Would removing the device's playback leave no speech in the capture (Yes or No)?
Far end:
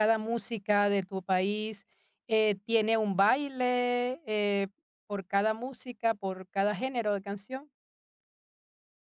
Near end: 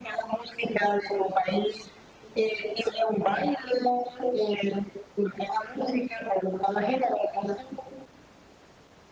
Yes